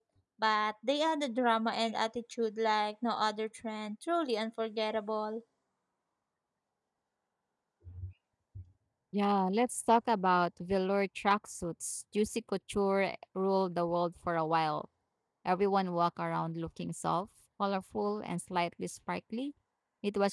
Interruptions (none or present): none